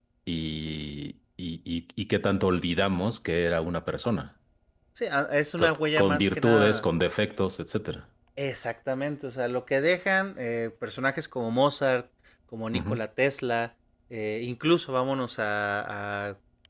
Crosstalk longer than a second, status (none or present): present